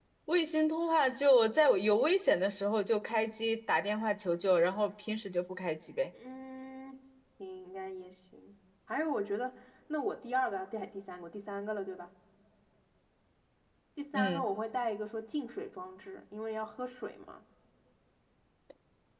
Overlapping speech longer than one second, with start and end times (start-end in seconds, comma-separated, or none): none